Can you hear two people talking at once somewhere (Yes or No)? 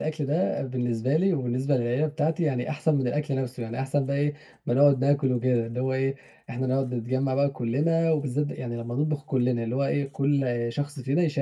No